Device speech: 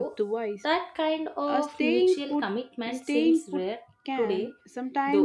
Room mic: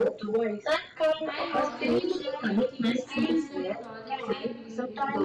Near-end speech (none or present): present